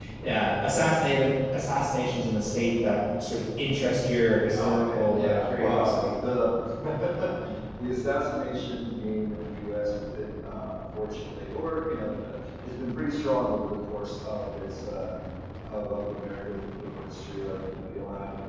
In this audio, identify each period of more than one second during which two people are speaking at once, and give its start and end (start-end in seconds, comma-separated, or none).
4.5-6.1